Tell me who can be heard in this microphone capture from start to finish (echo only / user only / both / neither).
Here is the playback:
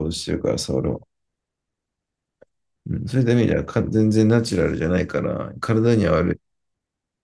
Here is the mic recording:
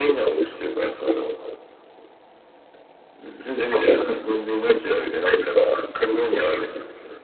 echo only